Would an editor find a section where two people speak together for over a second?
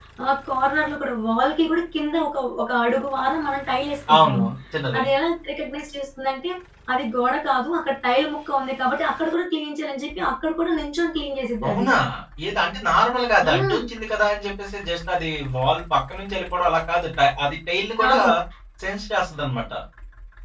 No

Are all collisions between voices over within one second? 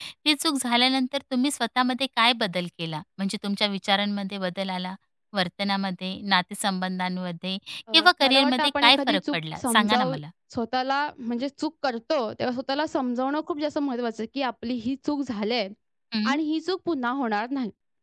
No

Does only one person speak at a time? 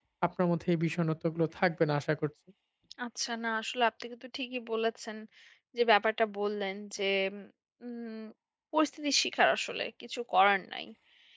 Yes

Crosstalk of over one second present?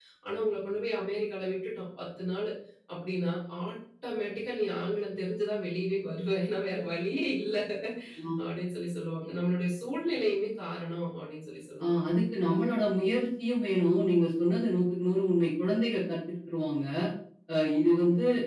No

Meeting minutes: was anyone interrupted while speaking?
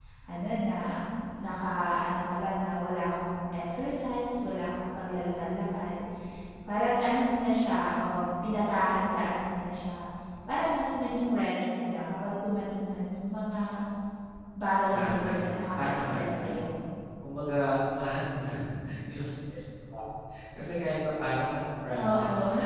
Yes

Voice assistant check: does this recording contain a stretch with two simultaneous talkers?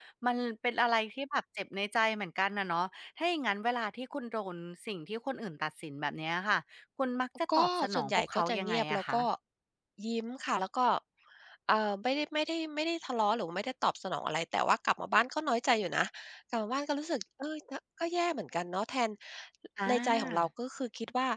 Yes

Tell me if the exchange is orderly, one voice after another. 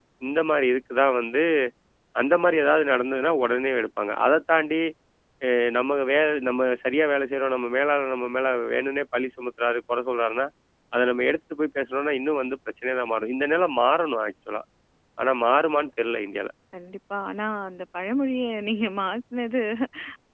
Yes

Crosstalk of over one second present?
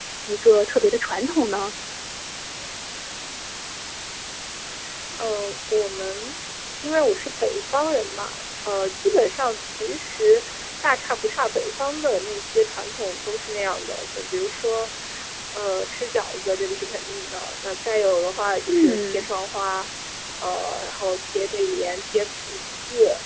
No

